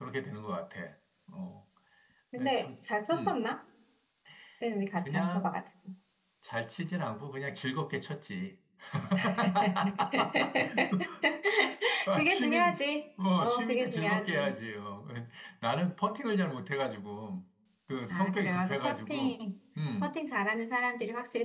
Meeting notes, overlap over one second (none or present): present